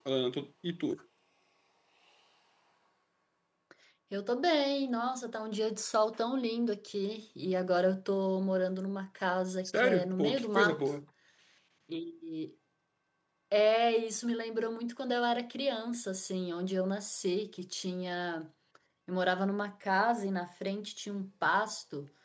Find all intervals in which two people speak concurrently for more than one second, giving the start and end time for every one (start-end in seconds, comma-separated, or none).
9.7-10.9